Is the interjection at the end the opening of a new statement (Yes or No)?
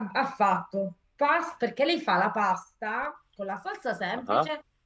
No